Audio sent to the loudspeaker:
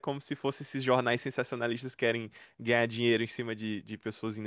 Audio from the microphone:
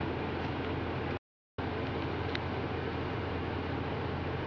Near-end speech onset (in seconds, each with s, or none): none